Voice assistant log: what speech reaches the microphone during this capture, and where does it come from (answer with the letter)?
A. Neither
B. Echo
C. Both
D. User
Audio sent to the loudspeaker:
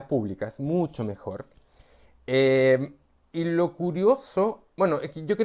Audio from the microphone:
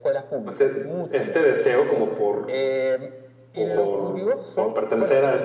C